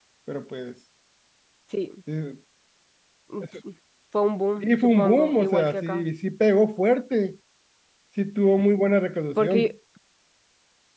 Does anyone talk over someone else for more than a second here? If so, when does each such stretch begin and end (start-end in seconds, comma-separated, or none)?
4.6-6.1